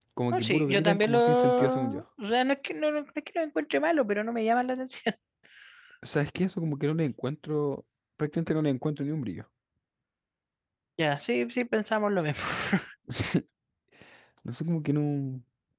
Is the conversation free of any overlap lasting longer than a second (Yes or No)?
No